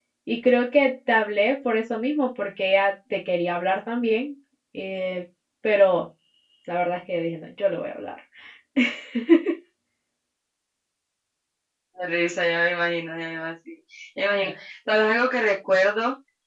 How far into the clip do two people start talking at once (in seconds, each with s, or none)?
none